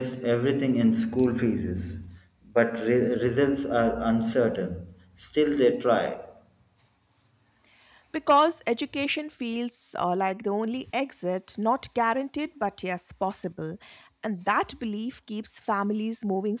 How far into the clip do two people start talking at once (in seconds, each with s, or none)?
none